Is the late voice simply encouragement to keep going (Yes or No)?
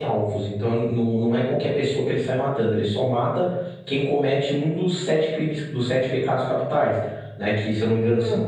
Yes